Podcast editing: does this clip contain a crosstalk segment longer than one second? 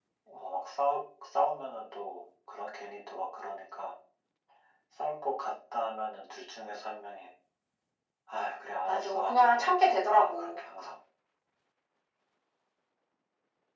Yes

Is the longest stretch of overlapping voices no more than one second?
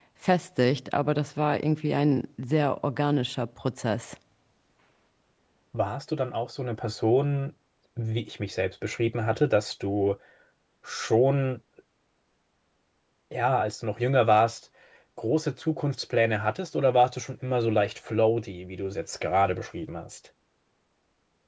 Yes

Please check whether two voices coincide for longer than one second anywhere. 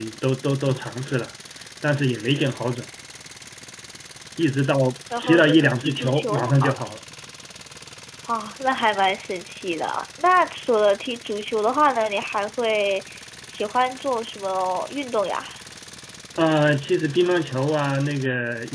Yes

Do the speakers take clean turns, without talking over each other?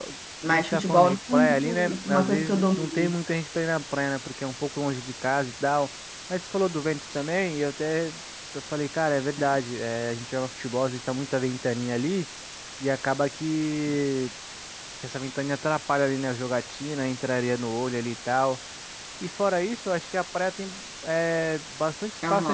No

